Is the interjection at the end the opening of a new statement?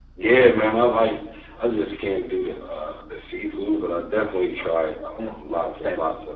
No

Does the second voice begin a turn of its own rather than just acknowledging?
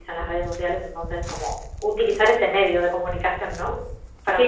Yes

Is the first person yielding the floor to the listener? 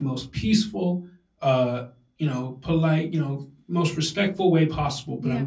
No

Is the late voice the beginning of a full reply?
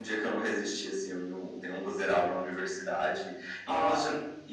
No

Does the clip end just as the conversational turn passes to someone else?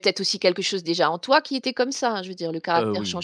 No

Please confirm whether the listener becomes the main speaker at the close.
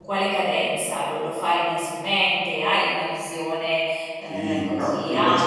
Yes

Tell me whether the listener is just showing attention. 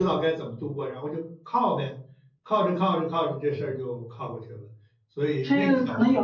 No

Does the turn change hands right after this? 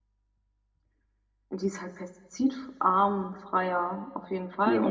Yes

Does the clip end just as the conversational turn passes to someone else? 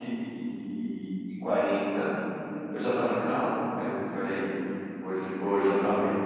No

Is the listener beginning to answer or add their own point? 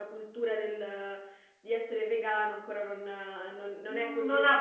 Yes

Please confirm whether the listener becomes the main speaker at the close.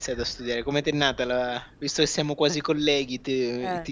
No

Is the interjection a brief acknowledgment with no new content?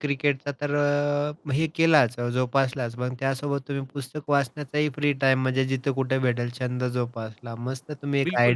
No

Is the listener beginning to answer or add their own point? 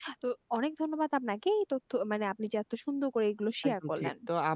Yes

